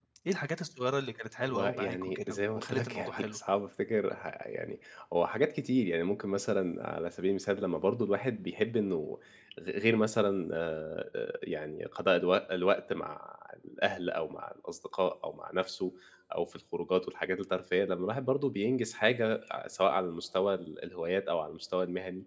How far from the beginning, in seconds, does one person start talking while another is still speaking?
1.4 s

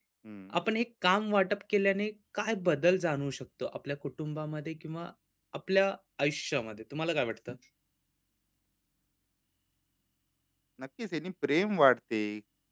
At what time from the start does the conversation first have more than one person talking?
none

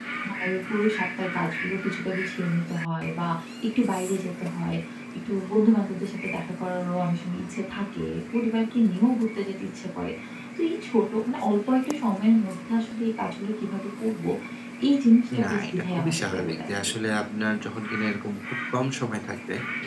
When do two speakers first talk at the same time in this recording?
15.4 s

